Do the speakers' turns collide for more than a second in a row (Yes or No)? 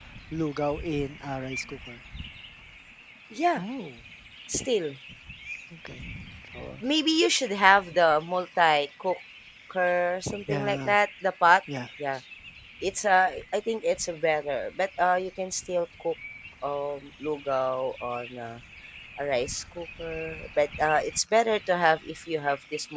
No